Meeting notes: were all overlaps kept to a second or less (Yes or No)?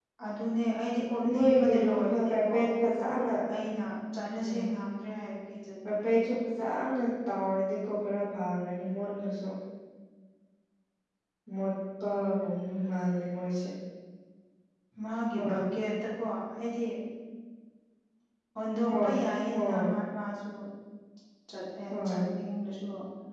No